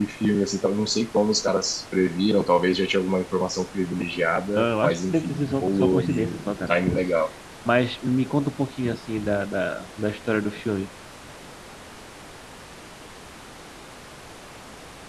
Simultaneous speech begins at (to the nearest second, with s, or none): 5 s